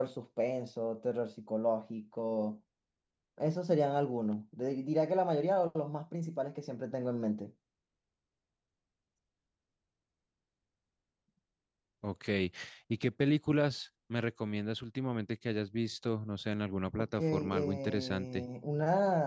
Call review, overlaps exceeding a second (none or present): present